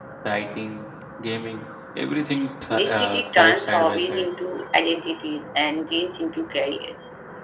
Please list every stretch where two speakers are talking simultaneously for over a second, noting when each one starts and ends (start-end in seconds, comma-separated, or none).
2.7-4.3